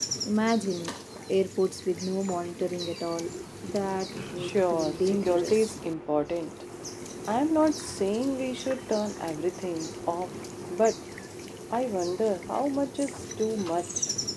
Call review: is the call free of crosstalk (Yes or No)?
No